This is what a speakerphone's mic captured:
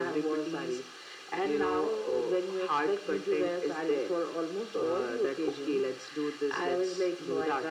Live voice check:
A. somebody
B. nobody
B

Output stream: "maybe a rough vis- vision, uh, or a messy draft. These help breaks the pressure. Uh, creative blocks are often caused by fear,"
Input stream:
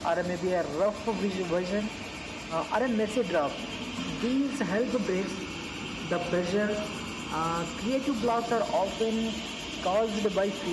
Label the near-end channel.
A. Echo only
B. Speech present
A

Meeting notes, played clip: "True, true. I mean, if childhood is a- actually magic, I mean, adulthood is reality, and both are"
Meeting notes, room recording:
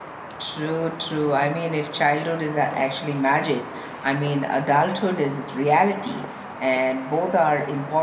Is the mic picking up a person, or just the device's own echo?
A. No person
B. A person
A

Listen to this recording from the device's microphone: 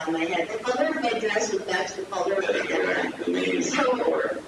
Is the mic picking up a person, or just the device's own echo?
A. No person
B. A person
A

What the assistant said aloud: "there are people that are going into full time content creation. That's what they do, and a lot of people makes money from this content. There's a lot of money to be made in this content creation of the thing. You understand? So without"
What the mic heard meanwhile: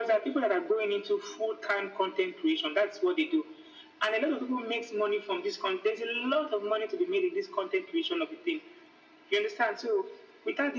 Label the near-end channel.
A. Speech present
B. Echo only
B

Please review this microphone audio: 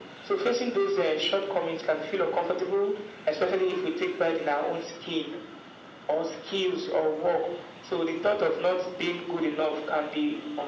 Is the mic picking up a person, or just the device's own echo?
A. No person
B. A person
A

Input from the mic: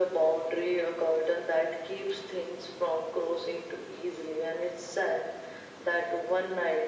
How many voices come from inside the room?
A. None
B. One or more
A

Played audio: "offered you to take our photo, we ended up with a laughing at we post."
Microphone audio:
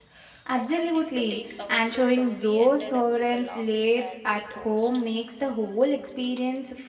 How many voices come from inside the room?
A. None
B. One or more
B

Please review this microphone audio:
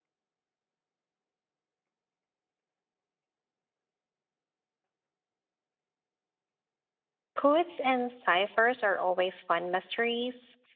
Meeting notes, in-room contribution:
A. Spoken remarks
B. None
A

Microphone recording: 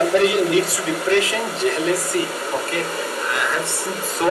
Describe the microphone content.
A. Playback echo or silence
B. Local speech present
A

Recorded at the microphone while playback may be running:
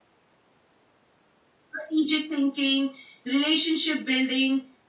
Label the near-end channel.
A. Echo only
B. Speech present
B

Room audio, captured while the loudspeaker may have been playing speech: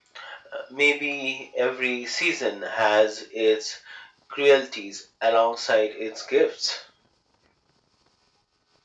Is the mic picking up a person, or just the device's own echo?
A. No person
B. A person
A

